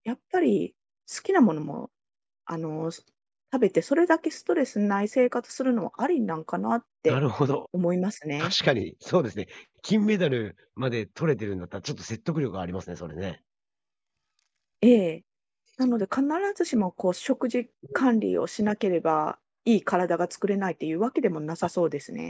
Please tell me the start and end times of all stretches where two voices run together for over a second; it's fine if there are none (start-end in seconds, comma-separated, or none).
none